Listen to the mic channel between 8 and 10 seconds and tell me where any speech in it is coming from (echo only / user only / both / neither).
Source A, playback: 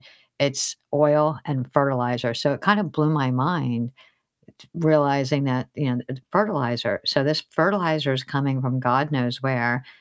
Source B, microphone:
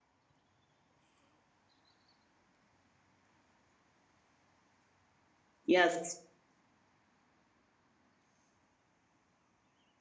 neither